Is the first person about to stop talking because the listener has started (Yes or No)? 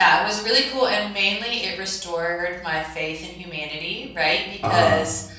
No